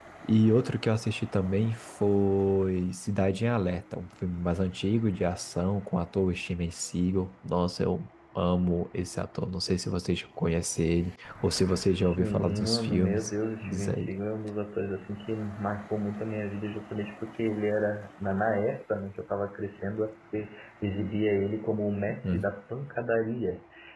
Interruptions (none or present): present